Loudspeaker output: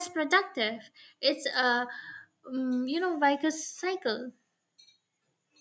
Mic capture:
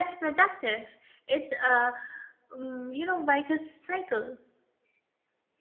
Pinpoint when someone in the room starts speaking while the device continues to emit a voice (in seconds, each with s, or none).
none